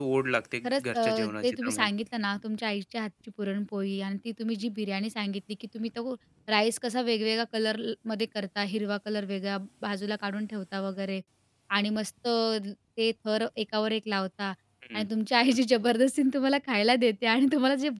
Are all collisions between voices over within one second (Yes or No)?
No